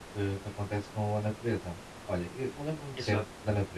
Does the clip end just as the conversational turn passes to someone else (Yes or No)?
No